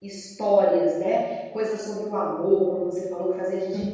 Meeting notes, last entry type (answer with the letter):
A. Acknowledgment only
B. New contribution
A